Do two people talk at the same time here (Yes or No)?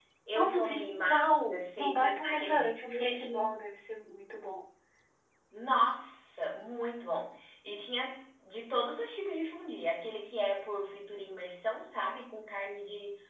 Yes